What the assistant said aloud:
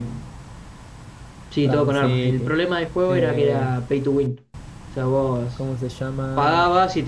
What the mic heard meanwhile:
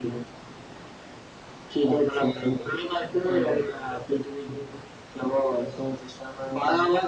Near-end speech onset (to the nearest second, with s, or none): none